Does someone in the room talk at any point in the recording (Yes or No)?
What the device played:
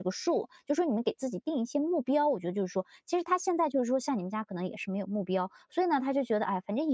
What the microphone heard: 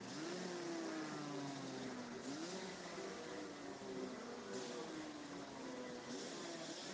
No